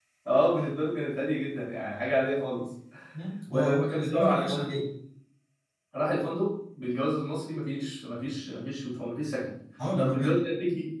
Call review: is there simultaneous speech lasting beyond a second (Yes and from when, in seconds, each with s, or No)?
Yes, from 3.5 s